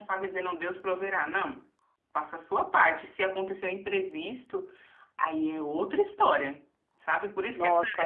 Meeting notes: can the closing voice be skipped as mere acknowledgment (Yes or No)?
Yes